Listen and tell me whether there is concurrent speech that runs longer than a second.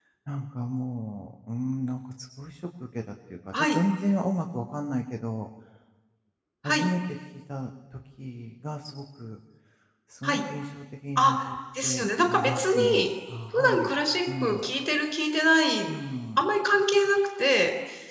Yes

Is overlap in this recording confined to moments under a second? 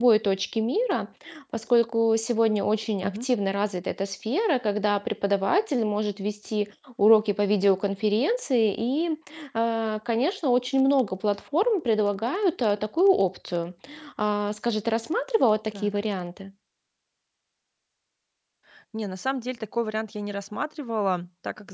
Yes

